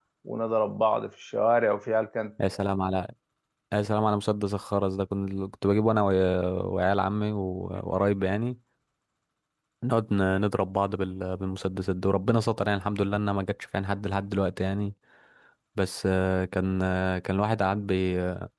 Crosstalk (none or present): none